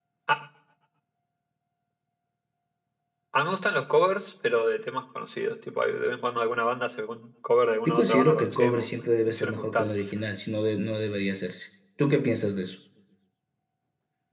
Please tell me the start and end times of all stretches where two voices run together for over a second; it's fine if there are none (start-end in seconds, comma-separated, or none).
7.8-9.9